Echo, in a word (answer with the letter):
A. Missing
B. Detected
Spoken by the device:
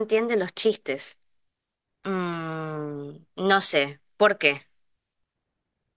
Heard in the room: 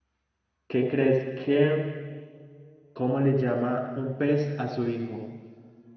A